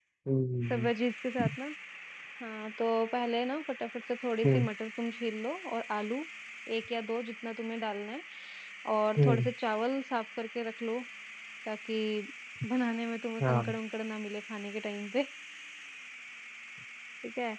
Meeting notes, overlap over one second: none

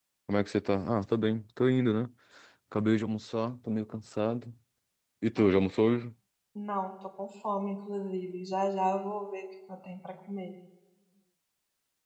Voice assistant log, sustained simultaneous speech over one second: none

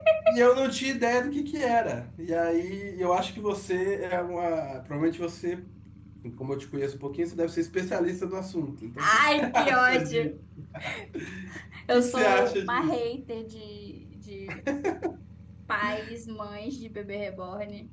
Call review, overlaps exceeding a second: present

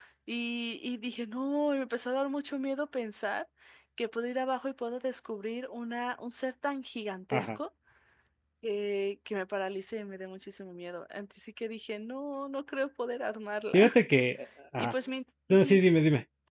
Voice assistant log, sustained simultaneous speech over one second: none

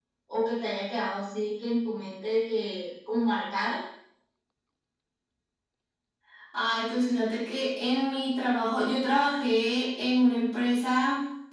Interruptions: none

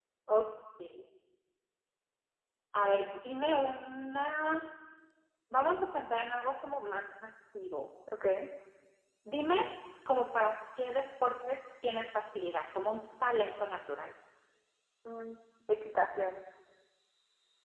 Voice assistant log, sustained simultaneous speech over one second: none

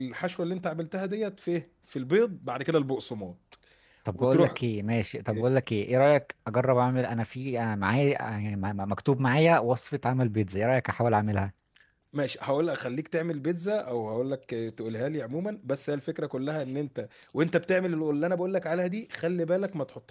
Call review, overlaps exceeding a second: none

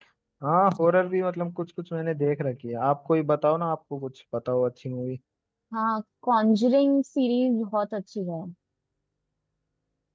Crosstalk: none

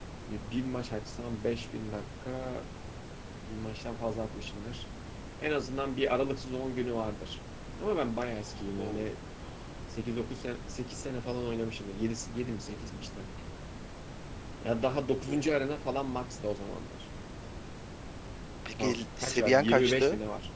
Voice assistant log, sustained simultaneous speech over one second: present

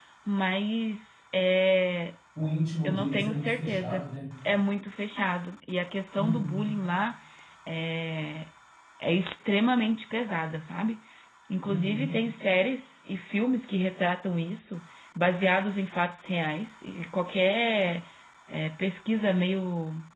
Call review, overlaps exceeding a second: present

